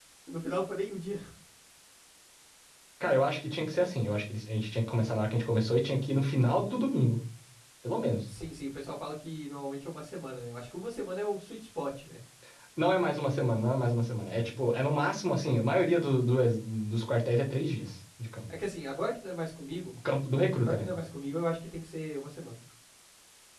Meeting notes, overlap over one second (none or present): none